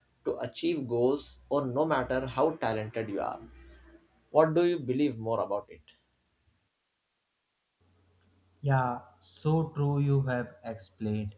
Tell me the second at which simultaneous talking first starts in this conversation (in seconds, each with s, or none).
none